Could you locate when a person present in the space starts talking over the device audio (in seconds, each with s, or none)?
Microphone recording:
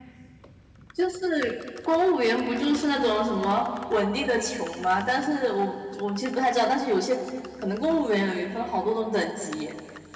none